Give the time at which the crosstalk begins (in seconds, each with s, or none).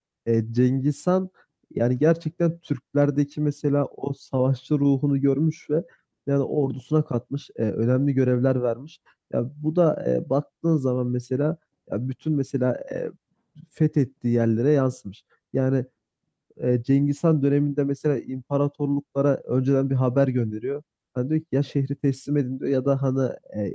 none